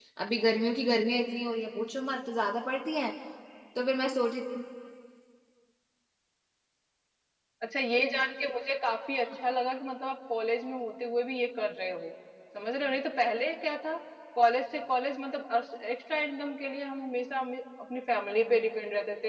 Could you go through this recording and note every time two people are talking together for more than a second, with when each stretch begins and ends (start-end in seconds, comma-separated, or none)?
none